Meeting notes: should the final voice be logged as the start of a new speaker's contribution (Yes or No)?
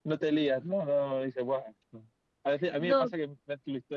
No